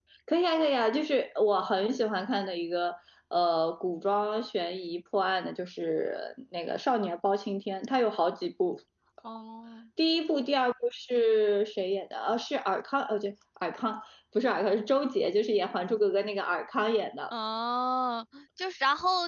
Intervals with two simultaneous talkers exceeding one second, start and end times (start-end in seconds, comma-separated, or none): none